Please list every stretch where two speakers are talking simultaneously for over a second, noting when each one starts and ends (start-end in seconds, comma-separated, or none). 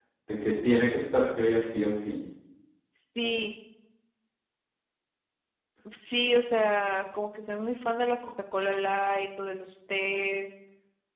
none